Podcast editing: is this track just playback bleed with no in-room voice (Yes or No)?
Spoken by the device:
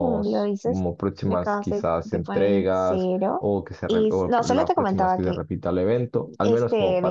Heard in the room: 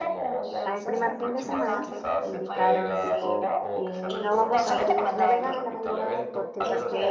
No